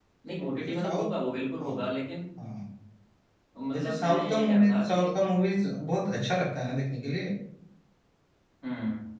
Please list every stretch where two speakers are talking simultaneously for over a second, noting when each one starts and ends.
3.7-5.1

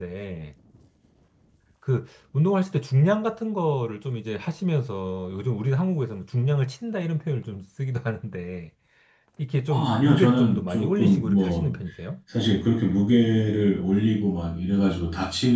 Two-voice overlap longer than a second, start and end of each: 9.7-11.8

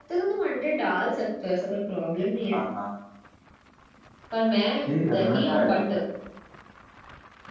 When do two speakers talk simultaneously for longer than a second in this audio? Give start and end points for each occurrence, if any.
4.9-6.1

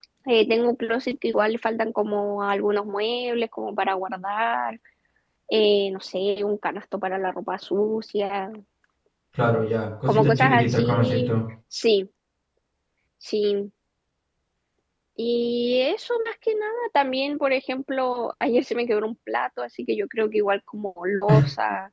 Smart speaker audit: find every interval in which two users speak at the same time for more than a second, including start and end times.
10.1-11.3

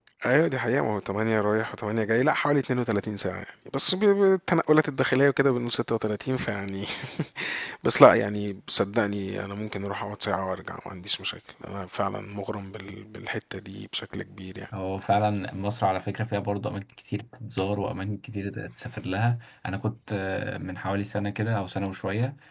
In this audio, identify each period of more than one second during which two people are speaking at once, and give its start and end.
none

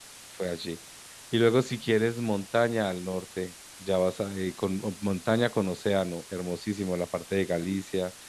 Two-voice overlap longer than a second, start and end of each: none

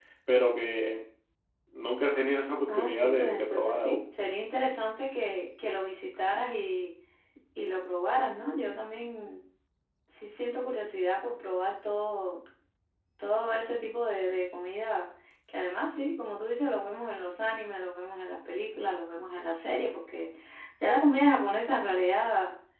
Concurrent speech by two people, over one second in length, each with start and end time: 2.7-4.0

